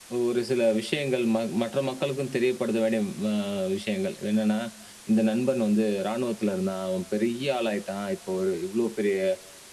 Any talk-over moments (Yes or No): No